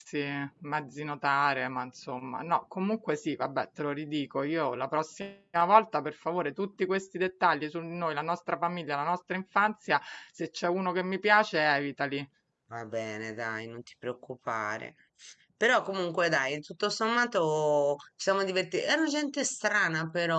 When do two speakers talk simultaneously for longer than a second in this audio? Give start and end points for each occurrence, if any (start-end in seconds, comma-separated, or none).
none